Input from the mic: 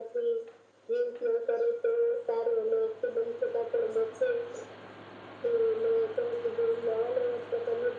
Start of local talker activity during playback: none

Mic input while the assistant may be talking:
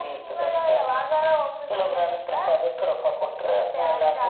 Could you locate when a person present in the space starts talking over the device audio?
none

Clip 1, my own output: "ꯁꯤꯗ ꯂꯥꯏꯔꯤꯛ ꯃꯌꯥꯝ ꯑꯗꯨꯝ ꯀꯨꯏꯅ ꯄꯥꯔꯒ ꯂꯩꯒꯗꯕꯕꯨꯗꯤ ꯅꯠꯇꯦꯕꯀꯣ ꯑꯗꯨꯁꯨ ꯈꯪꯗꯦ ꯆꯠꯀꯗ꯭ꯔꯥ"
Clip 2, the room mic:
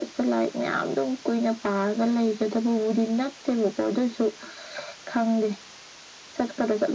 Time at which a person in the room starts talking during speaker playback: none

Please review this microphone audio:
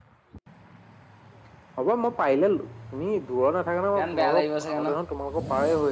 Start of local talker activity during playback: 3.9 s

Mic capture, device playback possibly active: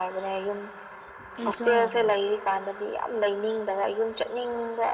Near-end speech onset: 1.4 s

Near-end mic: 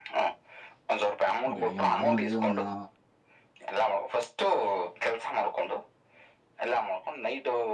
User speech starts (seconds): 1.5 s

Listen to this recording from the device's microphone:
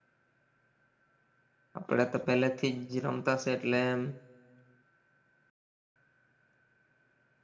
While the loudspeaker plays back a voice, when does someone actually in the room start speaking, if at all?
1.7 s

